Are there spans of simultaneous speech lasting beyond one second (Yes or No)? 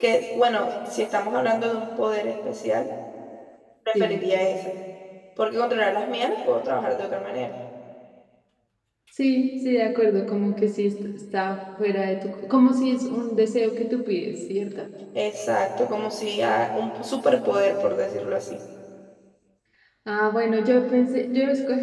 No